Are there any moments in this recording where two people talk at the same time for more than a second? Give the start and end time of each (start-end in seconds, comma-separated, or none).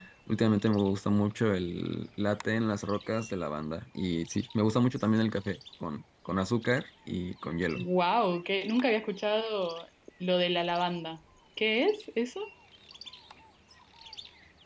none